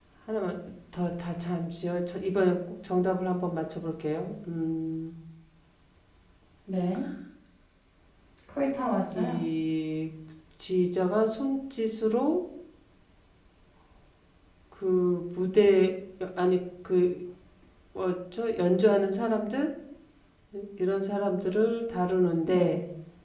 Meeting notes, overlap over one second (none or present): none